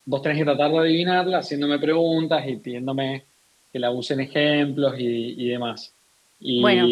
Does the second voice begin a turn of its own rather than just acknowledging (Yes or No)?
No